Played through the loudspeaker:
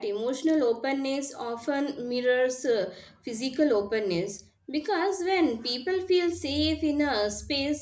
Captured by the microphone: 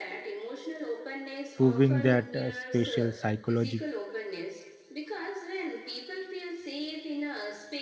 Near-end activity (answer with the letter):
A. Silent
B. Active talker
B